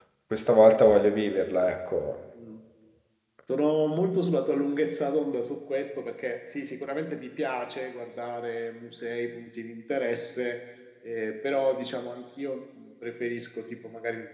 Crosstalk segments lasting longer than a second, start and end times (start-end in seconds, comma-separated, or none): none